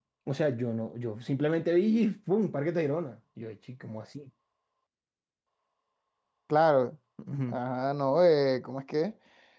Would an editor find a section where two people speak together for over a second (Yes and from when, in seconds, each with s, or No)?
No